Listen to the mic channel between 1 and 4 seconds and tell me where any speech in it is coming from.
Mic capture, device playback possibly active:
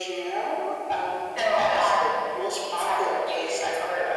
echo only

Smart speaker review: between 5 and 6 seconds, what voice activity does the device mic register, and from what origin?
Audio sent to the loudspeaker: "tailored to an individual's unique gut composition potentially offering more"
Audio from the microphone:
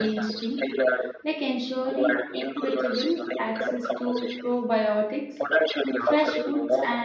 both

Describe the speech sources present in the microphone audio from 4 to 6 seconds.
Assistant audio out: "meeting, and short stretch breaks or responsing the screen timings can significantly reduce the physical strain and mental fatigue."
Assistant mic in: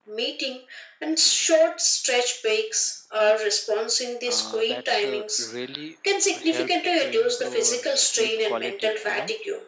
both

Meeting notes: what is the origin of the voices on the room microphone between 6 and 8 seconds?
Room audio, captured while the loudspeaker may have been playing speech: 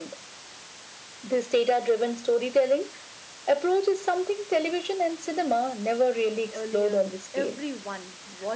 both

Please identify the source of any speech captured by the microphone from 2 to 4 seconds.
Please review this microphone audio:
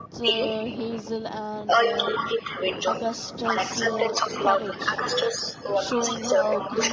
both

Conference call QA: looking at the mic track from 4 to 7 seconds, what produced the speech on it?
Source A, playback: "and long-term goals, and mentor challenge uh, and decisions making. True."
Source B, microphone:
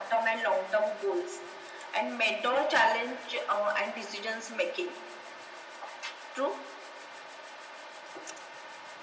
echo only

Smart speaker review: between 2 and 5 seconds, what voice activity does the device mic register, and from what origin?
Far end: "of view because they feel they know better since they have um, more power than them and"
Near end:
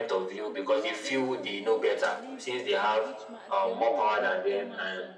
both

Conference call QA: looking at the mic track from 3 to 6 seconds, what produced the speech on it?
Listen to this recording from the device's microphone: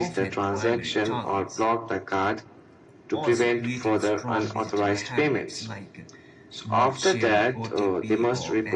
both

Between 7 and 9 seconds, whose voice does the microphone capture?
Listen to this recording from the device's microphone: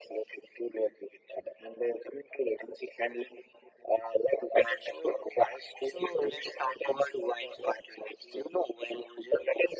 echo only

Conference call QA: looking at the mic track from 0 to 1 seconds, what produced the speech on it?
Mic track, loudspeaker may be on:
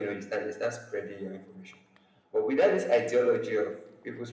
echo only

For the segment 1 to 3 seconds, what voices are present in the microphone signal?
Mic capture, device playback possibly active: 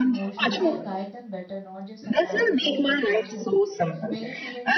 both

